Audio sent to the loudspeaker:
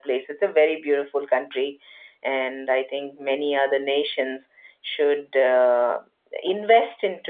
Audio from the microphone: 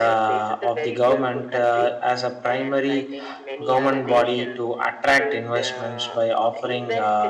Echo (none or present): present